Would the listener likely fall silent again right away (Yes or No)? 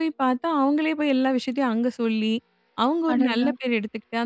Yes